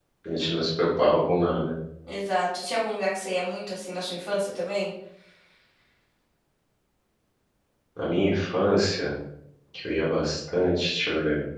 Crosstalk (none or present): none